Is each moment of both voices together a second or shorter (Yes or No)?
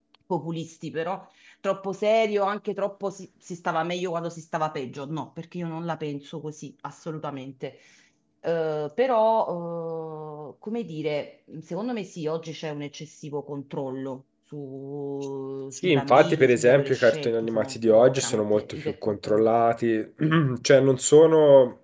No